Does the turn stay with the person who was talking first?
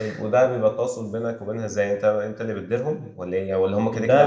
No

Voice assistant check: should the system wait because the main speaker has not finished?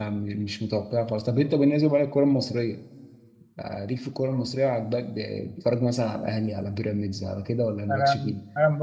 No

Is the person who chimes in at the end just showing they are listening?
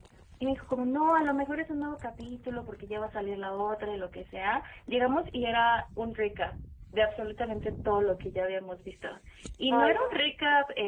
Yes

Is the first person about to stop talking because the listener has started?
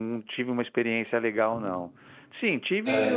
No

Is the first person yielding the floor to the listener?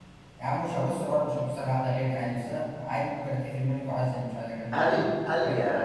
Yes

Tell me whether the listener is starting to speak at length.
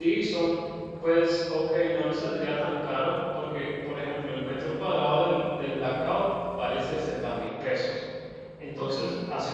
No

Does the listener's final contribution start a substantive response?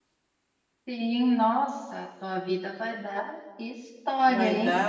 Yes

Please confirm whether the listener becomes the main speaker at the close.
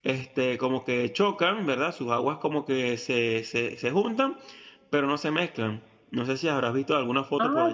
Yes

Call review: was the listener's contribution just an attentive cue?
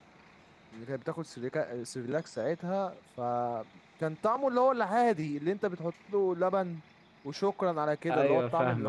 Yes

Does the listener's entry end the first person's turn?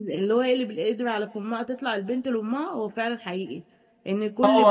No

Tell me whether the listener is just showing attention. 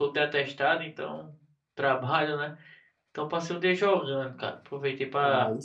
Yes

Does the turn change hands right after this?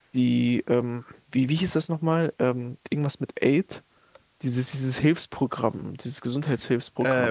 Yes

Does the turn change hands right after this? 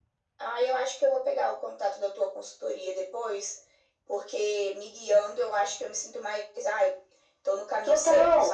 Yes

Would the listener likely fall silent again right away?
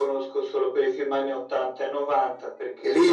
No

